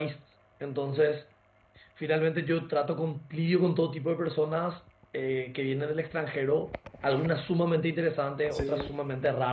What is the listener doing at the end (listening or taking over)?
listening